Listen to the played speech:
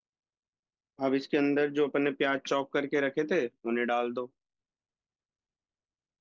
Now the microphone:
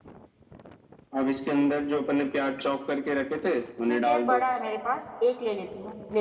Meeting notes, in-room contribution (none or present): present